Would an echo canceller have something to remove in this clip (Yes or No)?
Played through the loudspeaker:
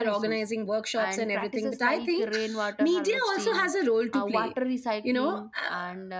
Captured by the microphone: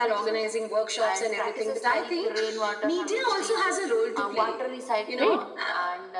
Yes